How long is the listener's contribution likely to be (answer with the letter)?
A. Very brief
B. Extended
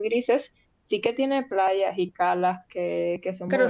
B